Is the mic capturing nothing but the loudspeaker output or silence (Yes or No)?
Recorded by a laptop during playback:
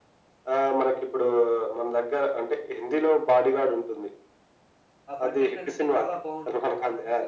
No